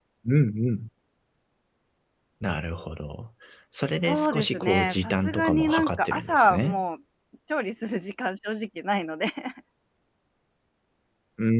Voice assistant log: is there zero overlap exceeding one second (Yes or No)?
No